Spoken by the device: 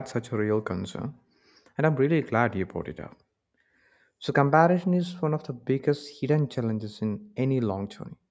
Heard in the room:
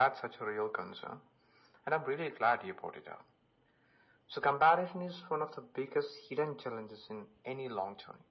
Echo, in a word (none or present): present